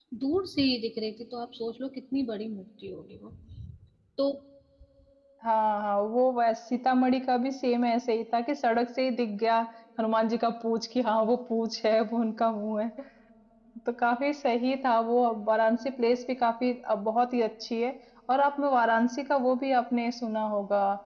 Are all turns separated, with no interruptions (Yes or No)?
Yes